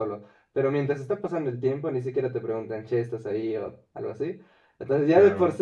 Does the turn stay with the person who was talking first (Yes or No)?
Yes